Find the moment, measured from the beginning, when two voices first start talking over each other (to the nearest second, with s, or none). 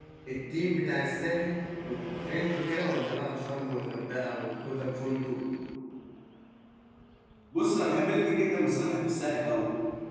none